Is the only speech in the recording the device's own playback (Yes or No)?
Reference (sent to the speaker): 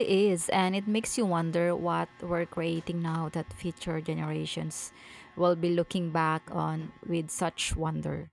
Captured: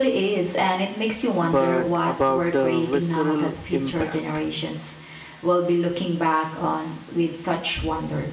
No